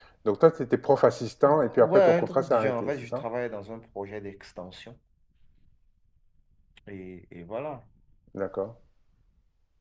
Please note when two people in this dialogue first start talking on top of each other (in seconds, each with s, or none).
1.4 s